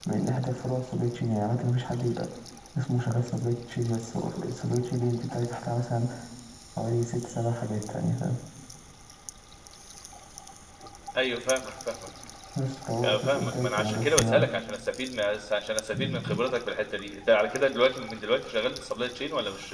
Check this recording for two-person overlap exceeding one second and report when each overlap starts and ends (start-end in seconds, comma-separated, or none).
13.0-14.5